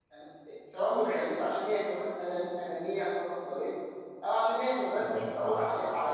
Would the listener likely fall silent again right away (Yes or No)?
Yes